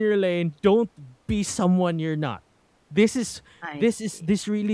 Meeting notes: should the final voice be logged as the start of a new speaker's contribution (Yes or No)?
No